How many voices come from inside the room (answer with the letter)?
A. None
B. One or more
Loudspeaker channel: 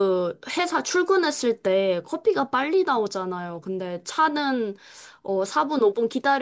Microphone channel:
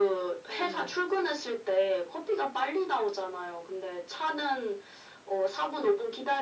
B